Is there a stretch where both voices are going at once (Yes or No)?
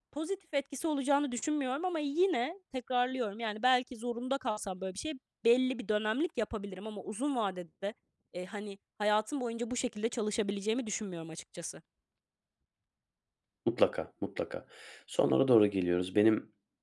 No